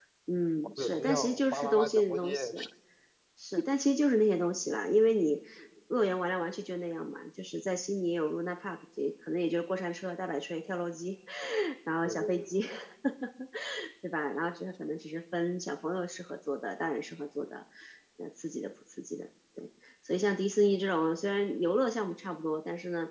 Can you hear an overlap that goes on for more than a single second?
Yes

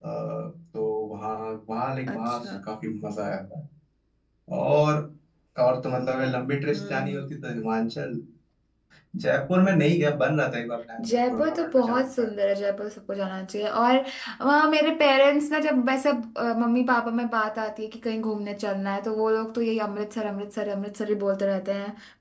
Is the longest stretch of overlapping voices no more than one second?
No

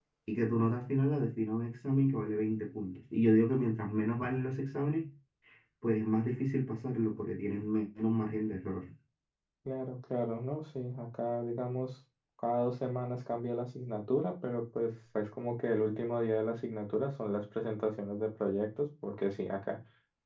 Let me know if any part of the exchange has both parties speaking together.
No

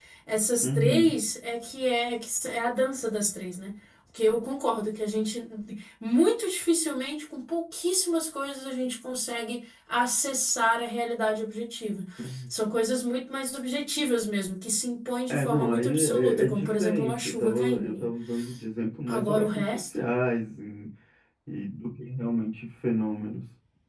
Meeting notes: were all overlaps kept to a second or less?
No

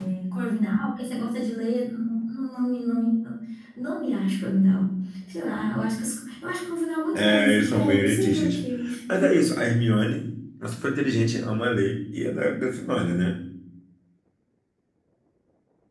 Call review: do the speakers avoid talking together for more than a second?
No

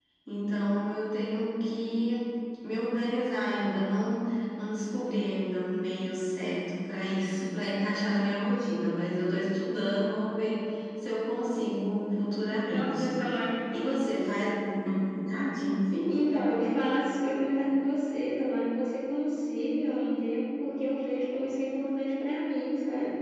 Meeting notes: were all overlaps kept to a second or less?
Yes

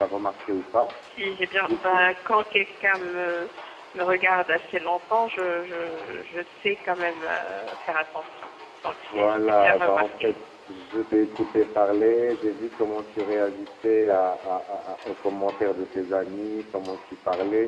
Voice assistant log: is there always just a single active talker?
No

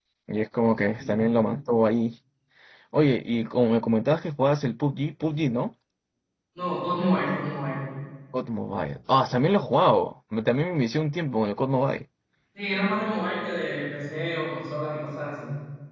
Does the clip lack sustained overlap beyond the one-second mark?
Yes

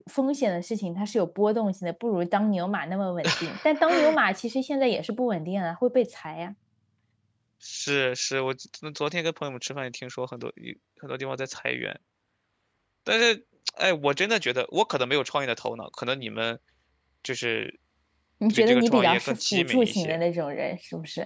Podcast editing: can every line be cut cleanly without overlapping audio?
No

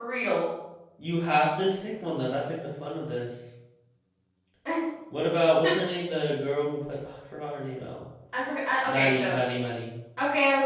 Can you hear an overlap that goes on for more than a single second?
No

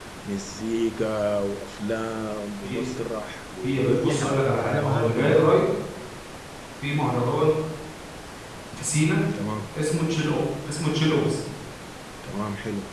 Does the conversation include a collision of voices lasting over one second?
Yes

